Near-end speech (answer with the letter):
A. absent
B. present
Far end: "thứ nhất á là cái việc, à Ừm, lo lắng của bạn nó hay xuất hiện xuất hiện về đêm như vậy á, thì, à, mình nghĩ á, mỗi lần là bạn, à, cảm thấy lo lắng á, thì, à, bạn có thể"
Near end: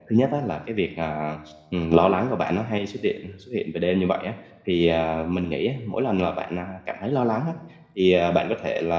A